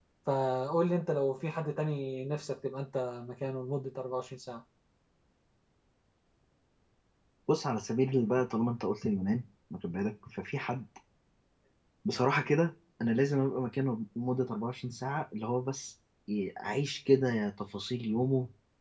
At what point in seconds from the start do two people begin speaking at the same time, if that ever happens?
none

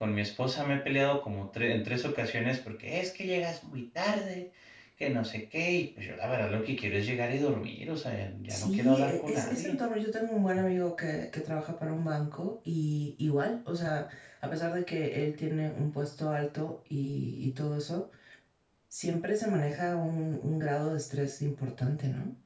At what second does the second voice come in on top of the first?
8 s

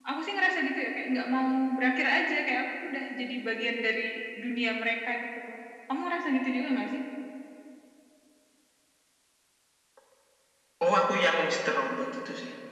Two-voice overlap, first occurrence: none

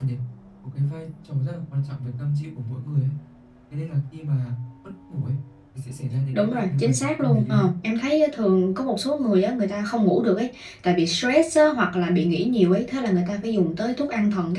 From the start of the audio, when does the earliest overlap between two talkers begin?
6 s

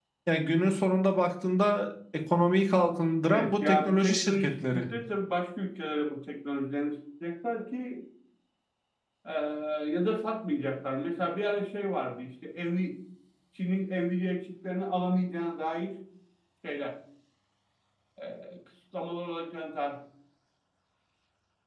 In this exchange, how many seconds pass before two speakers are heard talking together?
3 s

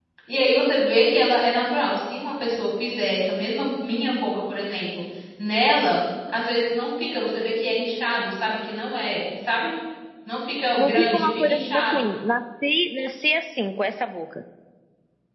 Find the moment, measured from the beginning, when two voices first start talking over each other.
11 s

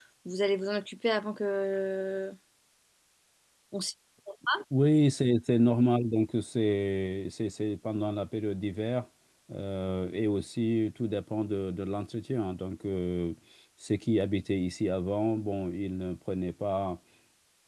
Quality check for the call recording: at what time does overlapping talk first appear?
none

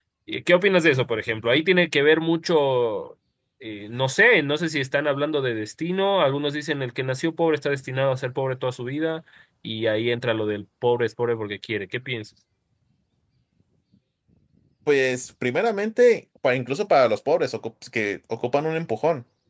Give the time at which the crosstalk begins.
none

